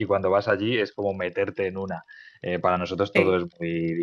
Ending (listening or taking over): listening